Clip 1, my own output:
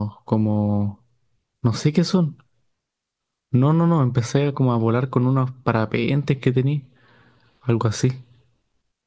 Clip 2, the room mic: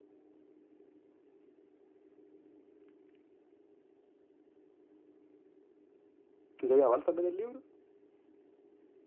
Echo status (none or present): none